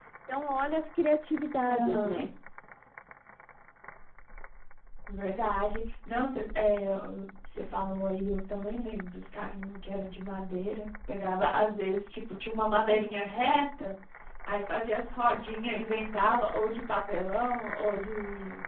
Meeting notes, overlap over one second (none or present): none